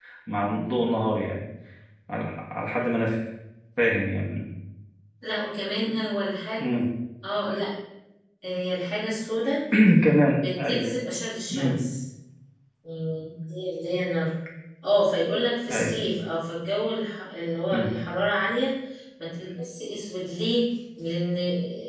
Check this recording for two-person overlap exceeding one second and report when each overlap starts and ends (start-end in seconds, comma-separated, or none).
none